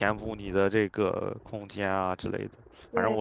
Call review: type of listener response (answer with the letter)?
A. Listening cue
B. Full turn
A